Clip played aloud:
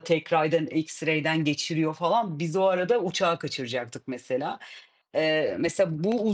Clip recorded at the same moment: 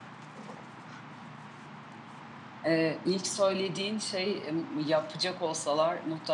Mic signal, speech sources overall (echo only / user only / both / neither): user only